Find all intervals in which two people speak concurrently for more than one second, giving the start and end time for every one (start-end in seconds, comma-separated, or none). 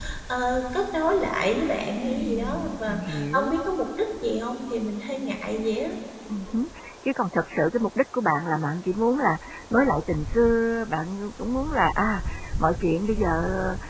2.0-3.5